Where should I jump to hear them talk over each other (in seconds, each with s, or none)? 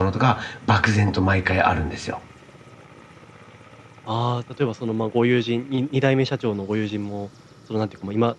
none